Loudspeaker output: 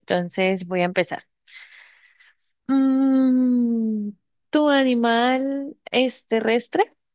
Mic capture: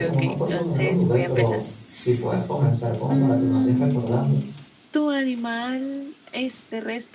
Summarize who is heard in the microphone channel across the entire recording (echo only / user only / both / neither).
both